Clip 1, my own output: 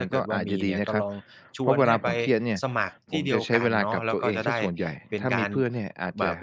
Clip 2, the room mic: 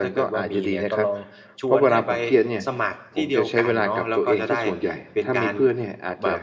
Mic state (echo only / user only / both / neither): echo only